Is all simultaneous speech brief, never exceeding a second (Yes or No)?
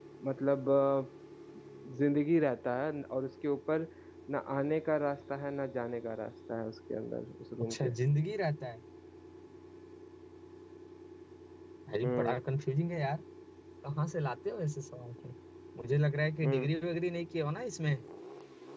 Yes